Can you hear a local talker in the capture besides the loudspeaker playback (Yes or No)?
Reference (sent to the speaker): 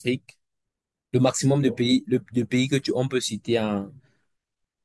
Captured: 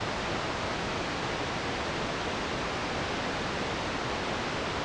No